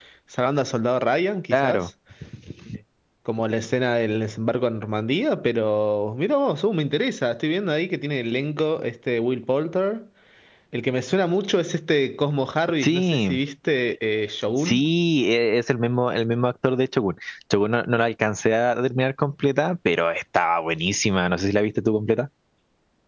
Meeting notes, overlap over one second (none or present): none